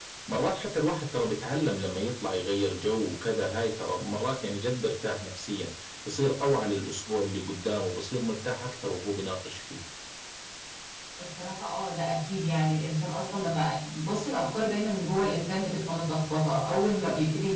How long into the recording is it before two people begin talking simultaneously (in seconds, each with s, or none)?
none